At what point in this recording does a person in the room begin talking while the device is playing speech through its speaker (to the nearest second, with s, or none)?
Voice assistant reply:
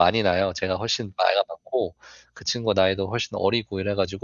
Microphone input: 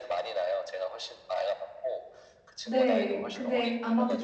3 s